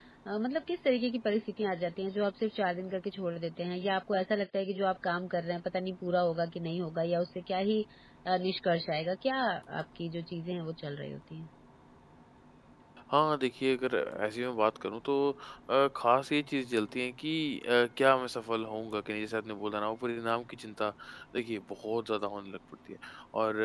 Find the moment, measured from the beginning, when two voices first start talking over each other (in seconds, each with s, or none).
none